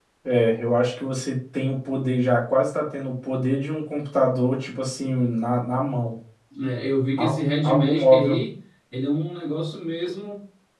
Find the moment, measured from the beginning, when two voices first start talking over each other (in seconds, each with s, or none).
7.2 s